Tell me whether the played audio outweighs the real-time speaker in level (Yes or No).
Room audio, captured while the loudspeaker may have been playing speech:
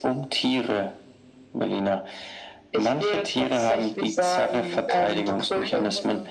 Yes